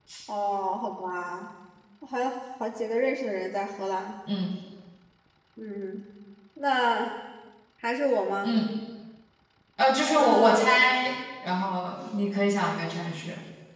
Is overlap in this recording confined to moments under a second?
Yes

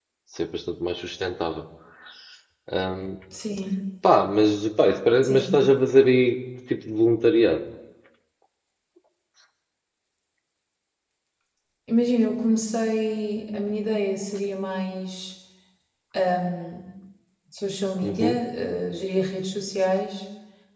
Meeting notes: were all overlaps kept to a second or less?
Yes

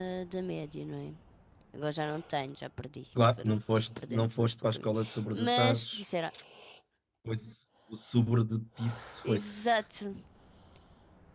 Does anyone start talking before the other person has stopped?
Yes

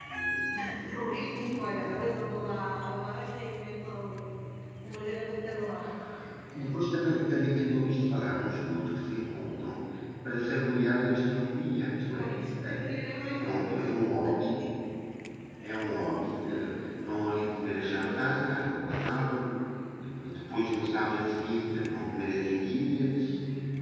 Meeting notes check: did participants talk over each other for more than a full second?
Yes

